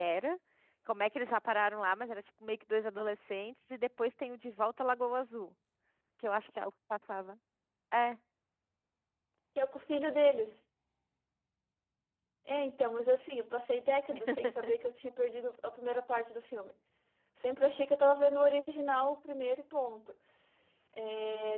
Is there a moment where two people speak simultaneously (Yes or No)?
No